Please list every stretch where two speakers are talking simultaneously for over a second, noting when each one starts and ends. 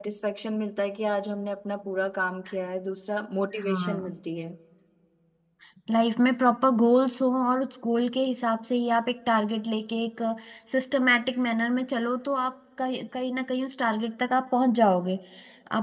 none

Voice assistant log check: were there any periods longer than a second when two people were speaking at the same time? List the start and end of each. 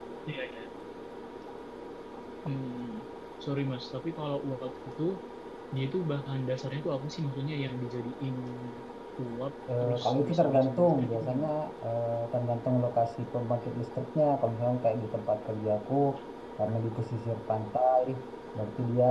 9.8-11.5

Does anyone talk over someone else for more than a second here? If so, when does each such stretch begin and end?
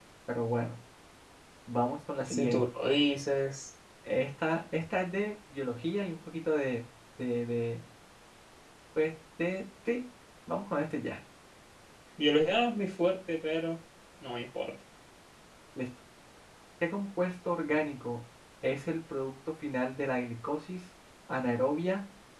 none

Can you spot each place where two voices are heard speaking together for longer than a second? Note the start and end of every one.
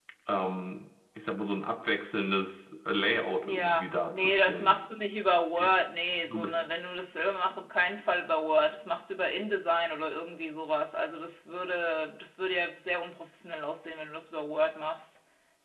3.4-4.8

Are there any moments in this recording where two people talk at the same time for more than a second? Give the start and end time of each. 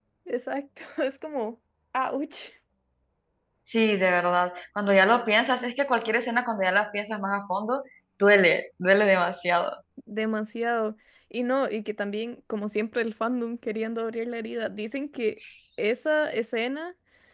none

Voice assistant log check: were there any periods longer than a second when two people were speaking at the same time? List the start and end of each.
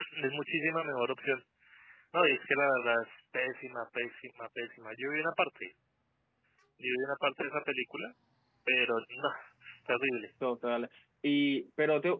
none

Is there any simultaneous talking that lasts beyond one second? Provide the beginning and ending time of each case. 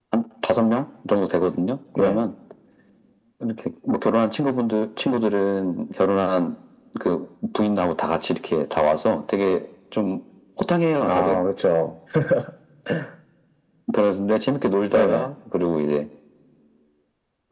none

